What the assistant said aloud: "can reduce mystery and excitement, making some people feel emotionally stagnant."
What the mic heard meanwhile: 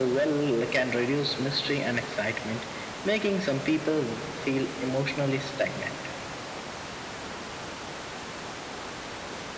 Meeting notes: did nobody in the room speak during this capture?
Yes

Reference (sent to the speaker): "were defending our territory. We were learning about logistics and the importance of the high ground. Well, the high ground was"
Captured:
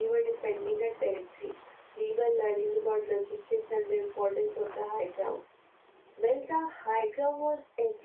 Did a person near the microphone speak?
No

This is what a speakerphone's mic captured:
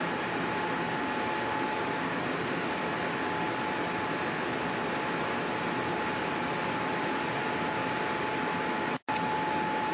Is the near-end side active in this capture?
No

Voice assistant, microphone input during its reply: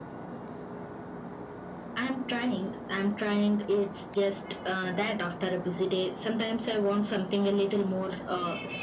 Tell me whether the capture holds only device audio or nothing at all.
Yes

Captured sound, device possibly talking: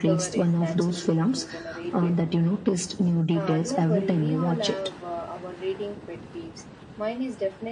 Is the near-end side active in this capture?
Yes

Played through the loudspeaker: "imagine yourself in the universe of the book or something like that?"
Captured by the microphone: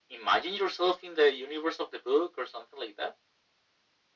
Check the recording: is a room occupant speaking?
No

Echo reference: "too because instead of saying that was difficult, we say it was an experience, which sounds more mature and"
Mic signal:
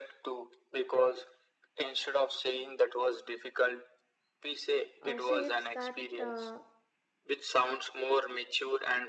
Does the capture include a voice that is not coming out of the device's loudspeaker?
Yes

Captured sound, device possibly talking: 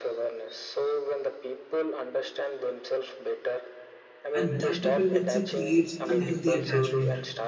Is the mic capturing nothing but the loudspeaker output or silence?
No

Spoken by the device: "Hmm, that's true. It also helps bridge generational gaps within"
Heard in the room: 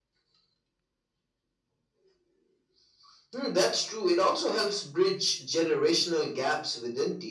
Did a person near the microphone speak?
No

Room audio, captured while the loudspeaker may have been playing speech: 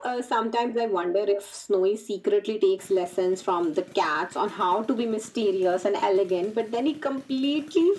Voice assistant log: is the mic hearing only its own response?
Yes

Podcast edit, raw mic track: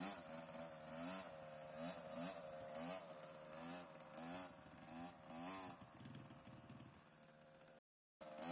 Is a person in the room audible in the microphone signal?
No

